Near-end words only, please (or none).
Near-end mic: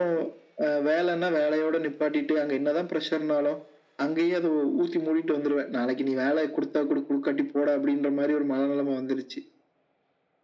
none